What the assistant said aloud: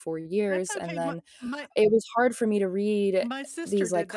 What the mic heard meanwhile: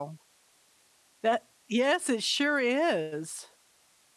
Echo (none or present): none